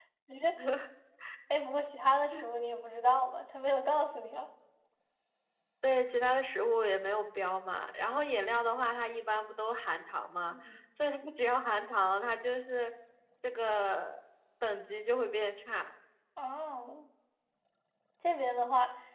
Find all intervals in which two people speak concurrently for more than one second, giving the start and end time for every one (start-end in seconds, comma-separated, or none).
none